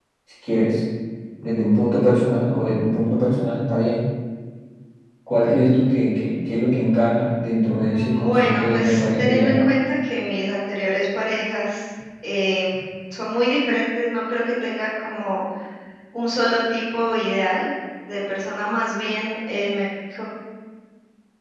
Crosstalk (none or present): present